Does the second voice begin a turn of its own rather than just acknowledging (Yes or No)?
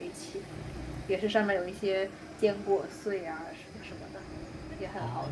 Yes